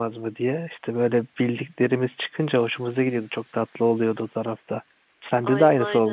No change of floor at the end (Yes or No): No